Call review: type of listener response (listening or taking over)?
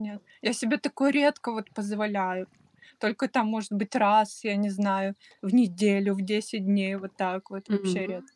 taking over